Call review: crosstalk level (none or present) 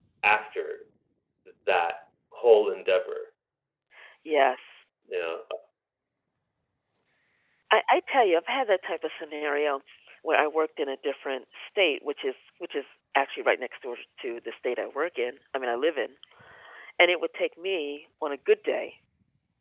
none